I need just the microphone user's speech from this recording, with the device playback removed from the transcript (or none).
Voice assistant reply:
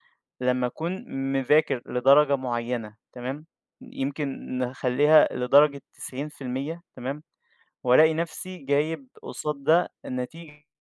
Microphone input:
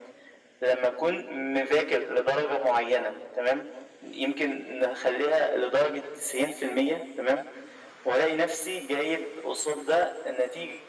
none